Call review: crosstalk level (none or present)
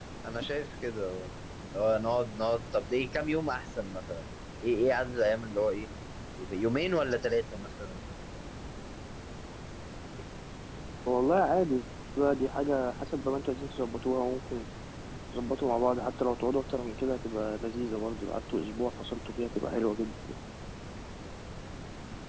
none